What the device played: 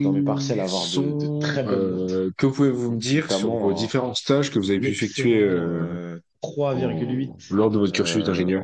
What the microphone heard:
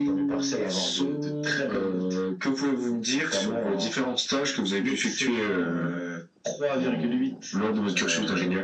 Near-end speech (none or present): none